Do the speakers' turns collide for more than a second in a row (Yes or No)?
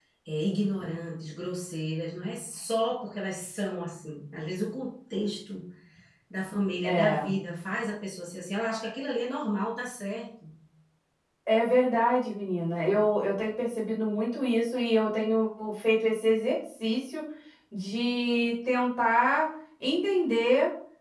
No